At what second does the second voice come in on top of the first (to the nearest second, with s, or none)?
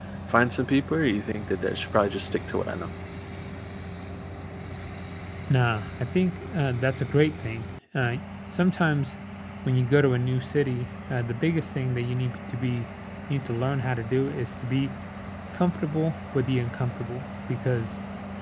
none